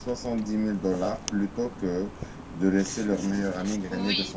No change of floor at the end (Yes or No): No